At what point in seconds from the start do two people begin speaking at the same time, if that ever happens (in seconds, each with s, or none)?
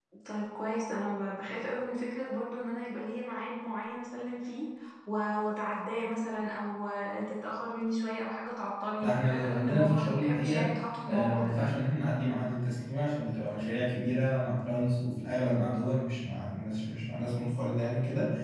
9.0 s